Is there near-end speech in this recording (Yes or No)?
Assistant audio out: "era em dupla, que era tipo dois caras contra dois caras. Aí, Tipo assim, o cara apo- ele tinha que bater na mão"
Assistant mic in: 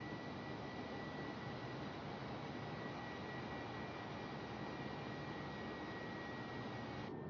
No